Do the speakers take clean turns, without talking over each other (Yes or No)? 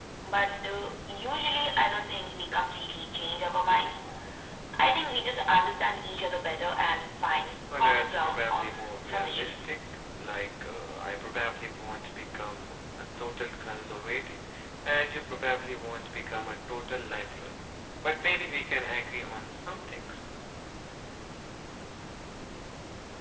No